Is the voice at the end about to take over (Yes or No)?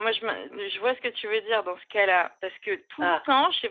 No